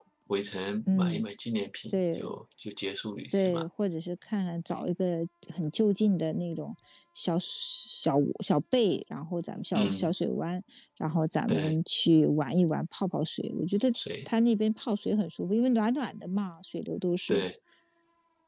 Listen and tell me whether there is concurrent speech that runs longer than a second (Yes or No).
No